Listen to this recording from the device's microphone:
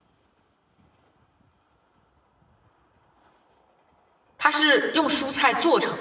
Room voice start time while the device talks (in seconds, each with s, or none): 4.4 s